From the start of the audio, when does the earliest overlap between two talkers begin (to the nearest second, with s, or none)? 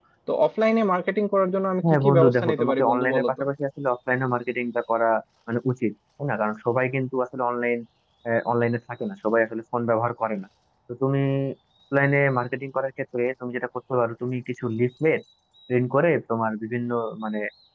2 s